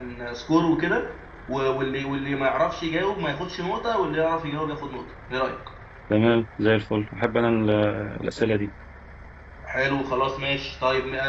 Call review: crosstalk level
none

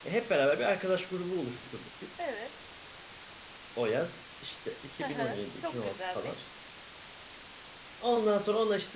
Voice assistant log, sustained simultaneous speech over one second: present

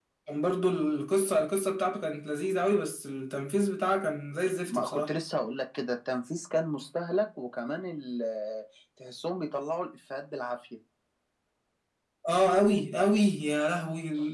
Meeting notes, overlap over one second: none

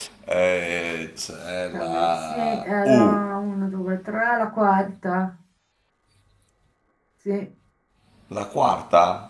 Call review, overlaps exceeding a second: present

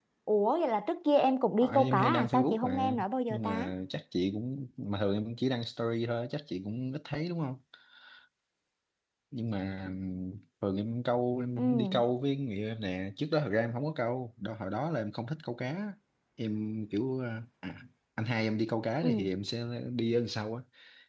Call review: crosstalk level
present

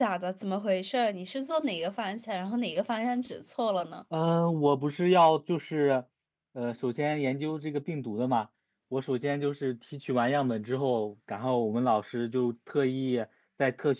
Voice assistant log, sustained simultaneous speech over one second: none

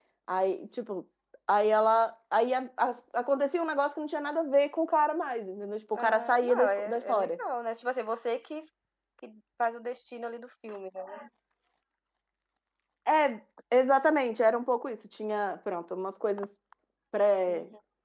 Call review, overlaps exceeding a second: present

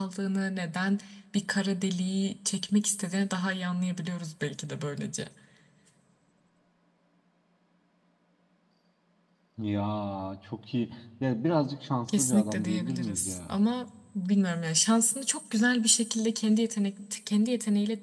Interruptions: present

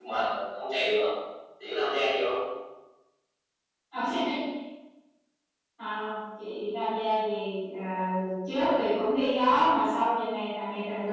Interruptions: none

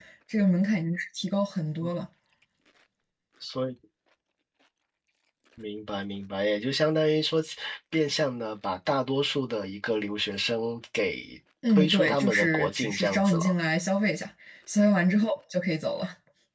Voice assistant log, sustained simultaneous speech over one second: present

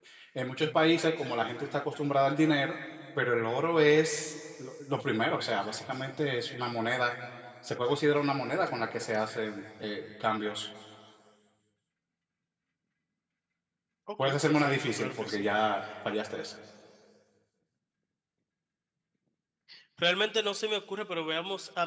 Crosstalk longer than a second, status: present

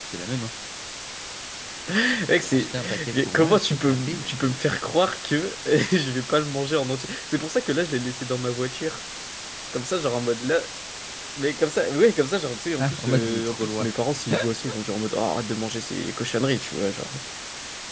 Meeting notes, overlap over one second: present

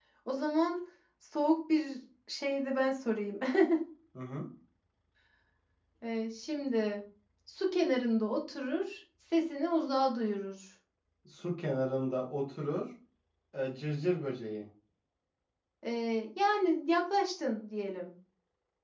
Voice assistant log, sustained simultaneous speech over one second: none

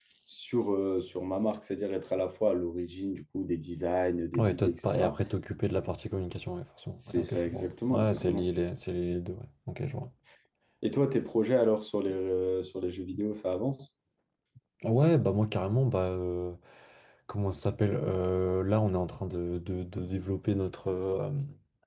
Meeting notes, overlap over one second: present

